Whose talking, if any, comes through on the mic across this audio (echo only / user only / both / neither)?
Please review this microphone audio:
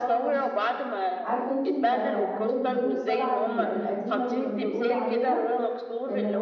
both